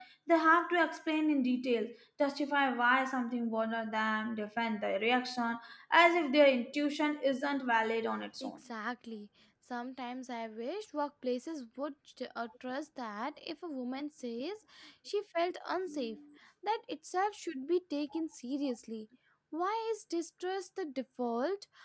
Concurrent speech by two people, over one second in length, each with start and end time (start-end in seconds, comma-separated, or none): none